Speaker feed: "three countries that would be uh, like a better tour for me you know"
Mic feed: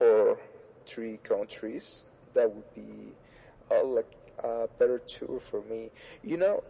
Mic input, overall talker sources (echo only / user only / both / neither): echo only